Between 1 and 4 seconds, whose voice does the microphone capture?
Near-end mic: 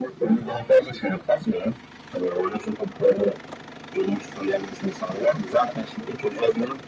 echo only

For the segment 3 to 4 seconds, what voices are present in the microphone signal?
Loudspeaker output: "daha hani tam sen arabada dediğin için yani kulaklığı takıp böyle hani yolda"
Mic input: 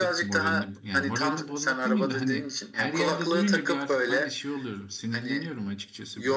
both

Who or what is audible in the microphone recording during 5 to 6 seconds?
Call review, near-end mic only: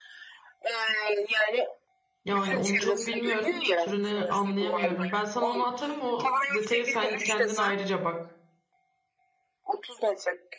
both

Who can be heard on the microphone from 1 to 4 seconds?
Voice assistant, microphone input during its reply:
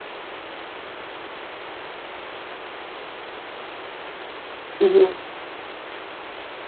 neither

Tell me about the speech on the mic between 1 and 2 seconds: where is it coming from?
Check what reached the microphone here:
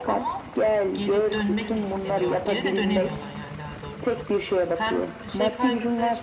both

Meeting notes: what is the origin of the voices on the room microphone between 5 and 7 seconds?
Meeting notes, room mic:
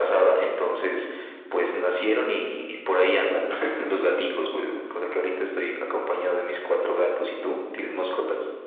echo only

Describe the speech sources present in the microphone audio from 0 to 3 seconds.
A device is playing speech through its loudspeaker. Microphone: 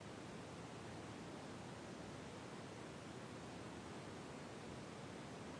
neither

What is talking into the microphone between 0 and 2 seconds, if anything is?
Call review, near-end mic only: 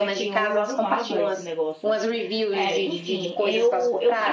both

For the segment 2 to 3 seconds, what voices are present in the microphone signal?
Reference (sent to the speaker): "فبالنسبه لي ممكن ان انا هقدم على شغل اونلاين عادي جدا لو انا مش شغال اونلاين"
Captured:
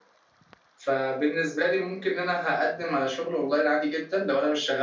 echo only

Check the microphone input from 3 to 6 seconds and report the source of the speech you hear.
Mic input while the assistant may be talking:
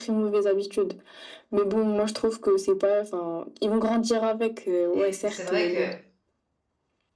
both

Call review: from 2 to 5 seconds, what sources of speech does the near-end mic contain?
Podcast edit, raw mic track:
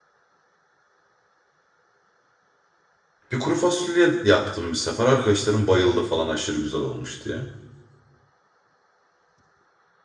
user only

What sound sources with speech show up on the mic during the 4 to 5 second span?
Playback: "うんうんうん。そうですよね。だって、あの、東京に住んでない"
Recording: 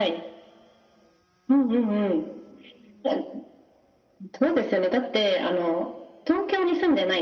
echo only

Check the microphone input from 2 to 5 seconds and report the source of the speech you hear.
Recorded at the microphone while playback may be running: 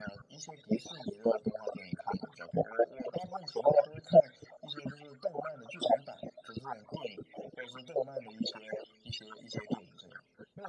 echo only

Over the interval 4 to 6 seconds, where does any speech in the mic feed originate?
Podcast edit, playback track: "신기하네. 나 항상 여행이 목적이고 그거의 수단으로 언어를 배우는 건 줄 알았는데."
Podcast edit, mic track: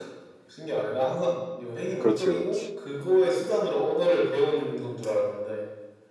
echo only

